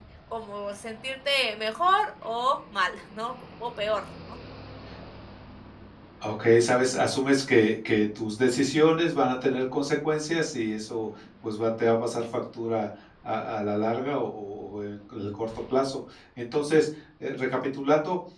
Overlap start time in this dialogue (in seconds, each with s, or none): none